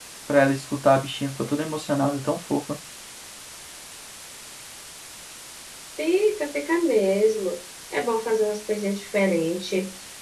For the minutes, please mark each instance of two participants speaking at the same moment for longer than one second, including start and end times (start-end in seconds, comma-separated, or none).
none